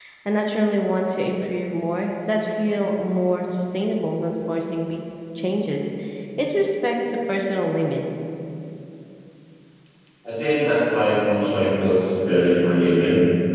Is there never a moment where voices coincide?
Yes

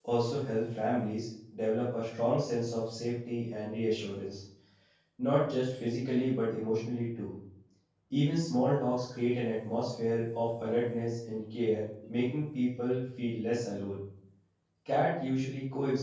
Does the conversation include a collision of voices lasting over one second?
No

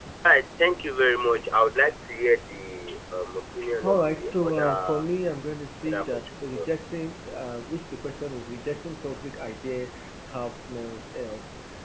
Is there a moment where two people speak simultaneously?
Yes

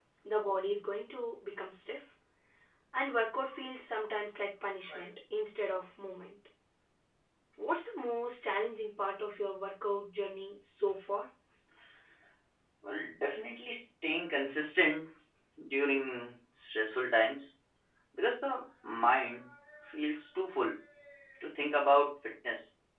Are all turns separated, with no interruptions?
Yes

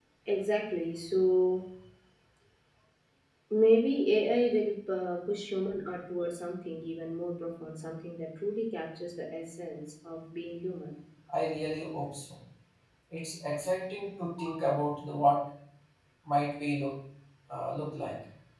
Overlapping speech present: No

